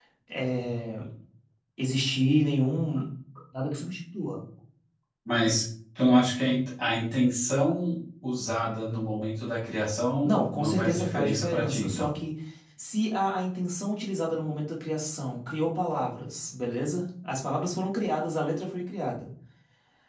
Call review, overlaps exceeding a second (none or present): present